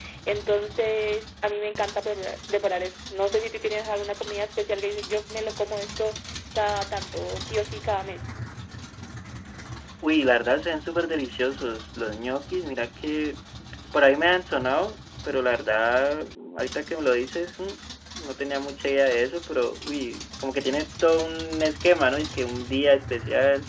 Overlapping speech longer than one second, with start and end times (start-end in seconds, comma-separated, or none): none